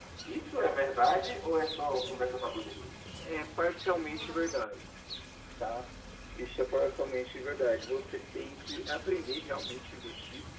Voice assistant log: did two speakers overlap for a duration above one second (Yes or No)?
No